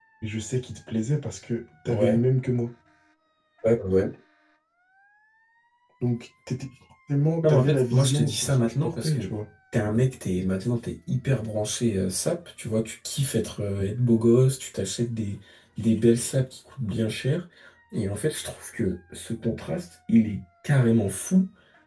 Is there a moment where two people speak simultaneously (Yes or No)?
Yes